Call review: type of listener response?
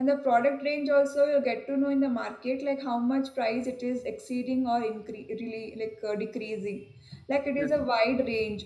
listening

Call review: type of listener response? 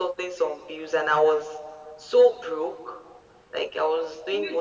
listening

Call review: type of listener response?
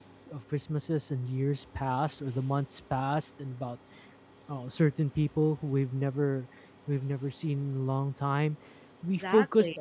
listening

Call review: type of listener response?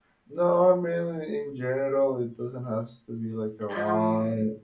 listening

